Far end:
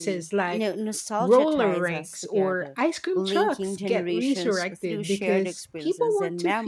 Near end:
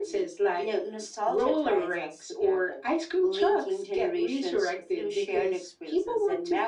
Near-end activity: none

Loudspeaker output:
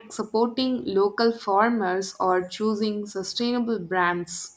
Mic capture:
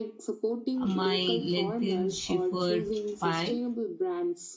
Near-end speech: present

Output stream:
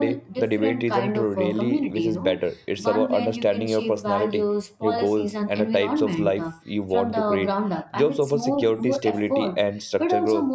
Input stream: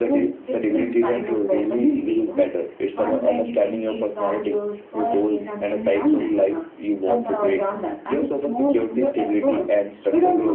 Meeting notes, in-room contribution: none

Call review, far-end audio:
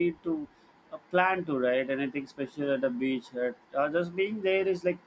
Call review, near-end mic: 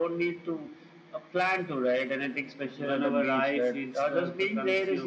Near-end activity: present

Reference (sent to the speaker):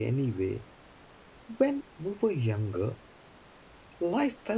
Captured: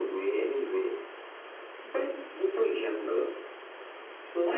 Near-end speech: none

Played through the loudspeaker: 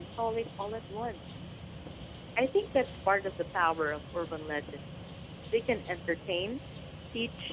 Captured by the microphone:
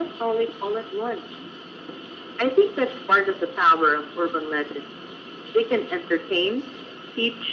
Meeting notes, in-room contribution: none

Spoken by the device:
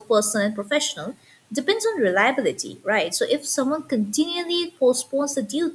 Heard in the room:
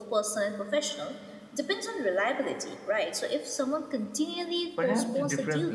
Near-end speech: present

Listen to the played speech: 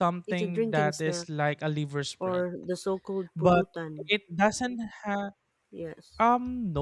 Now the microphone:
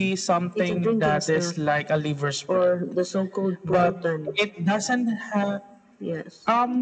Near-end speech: none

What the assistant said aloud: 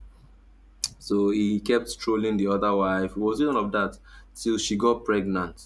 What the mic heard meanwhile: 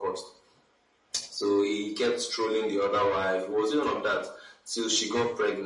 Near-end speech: none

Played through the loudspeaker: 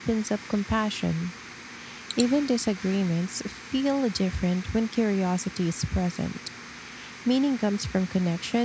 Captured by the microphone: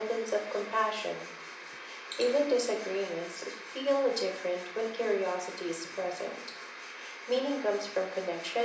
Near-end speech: none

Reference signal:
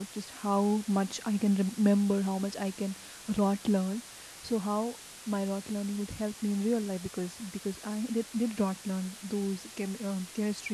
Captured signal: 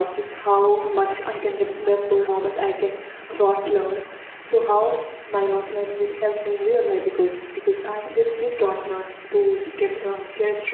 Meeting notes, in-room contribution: none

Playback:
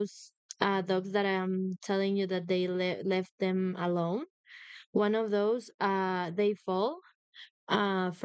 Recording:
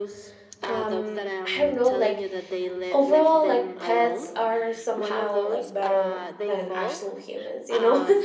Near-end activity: present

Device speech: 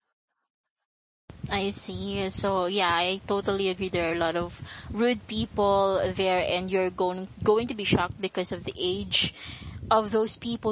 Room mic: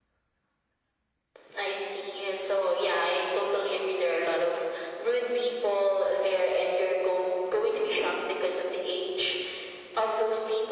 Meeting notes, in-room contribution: none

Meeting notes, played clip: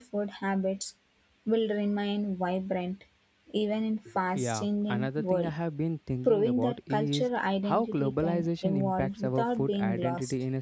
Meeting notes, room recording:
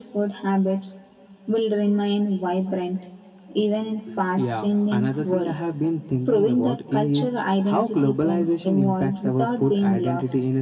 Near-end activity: none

